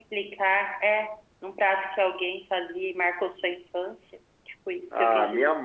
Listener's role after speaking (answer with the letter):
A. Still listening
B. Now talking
B